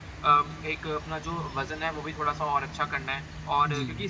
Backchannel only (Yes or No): Yes